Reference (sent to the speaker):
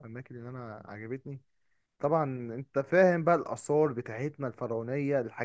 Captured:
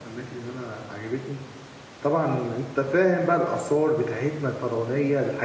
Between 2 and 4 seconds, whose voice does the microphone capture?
echo only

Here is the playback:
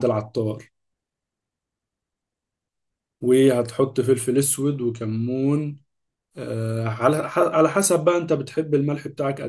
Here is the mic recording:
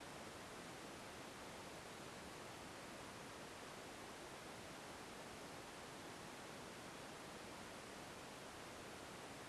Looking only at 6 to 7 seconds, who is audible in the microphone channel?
neither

